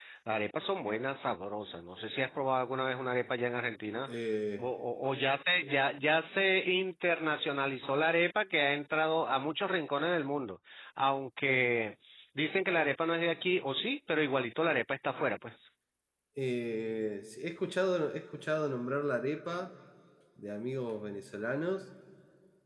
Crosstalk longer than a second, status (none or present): none